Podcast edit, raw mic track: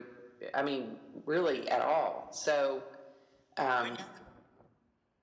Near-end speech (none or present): none